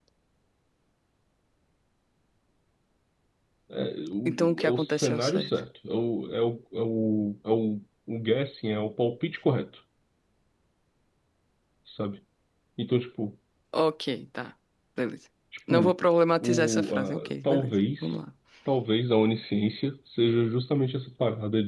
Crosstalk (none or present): present